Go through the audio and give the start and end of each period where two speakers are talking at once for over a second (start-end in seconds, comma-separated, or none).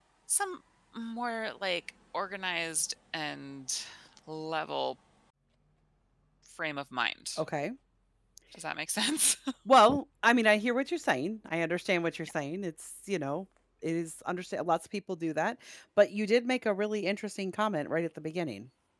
none